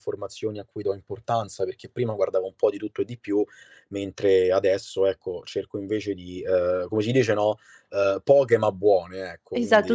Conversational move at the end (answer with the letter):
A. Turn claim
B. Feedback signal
A